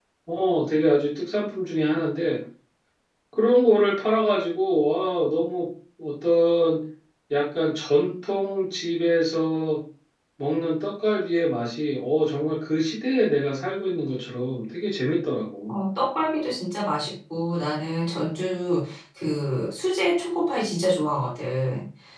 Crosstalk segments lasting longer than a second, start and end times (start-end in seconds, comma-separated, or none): none